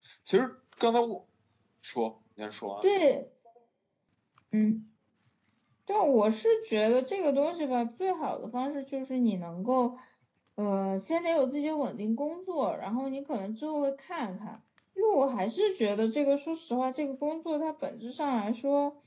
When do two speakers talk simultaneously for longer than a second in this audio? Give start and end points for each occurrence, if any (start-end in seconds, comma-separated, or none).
none